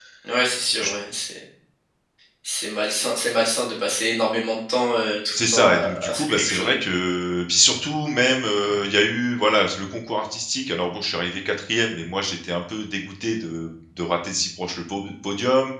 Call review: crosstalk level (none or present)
present